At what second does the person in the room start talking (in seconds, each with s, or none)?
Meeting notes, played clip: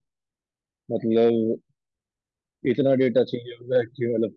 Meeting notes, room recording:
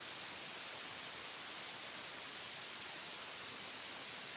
none